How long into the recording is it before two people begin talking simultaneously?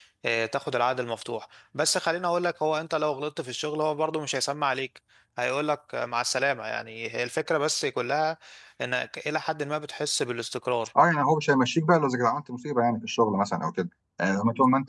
none

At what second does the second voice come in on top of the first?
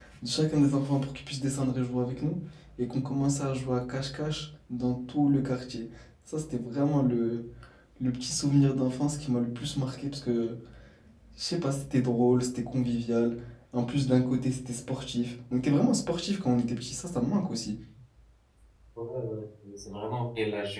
none

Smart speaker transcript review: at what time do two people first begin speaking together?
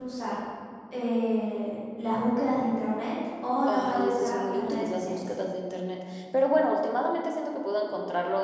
3.7 s

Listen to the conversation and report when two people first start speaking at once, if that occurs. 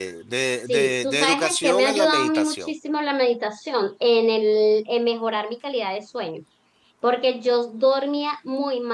0.7 s

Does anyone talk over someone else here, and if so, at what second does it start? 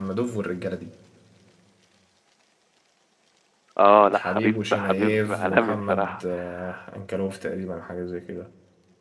4.1 s

